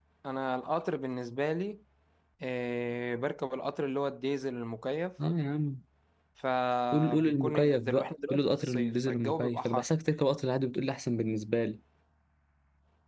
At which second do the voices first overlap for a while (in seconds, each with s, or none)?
6.9 s